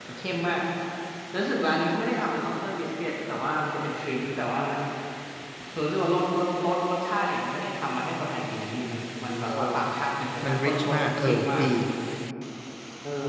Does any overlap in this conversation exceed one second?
Yes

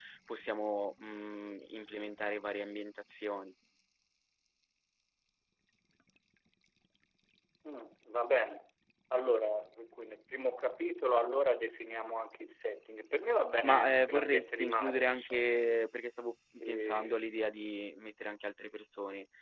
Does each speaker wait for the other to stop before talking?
No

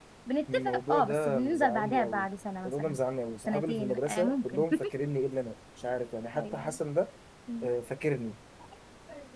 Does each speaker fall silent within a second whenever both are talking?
No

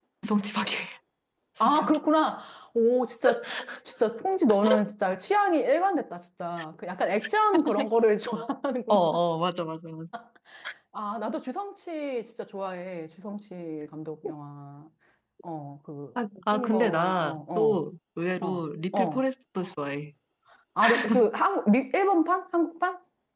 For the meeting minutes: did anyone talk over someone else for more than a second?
Yes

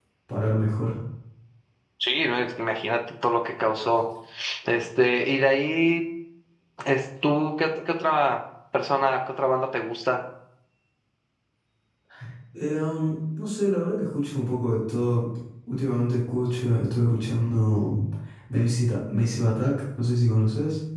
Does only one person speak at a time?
Yes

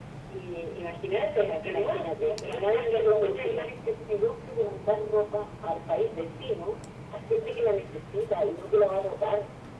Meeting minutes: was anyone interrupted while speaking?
Yes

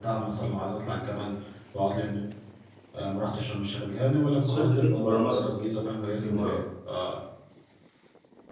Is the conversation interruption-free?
No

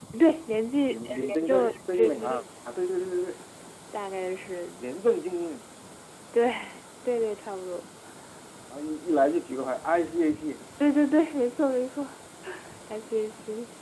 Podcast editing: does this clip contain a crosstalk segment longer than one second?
Yes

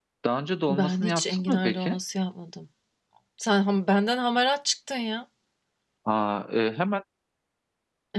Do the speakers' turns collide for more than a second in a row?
Yes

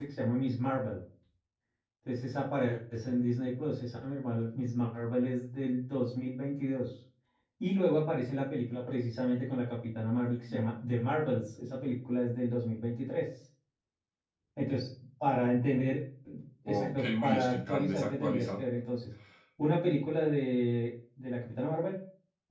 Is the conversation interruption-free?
No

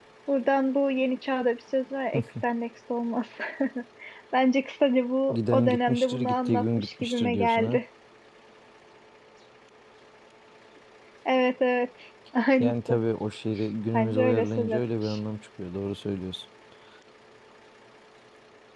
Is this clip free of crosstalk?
No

